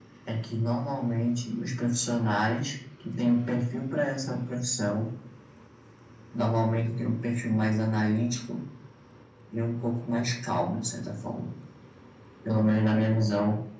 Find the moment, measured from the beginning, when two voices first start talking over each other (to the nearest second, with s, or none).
none